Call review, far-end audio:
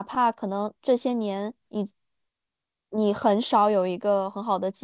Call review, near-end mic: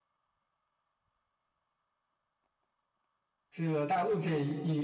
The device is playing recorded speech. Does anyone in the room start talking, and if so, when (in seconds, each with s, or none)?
3.5 s